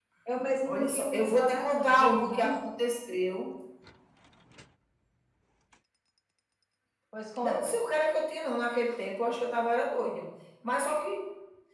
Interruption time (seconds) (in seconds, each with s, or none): 0.7 s